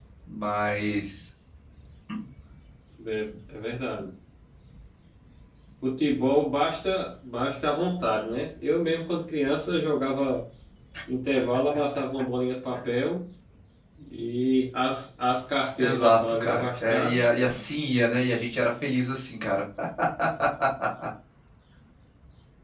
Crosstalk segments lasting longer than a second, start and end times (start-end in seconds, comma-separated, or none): 15.8-17.6